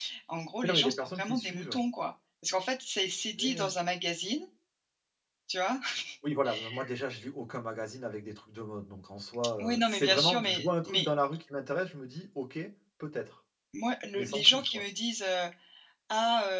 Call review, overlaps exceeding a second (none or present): present